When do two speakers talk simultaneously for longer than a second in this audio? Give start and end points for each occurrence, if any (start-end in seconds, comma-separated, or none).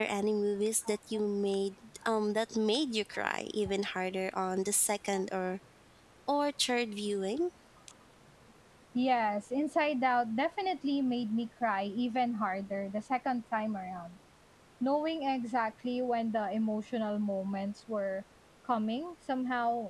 none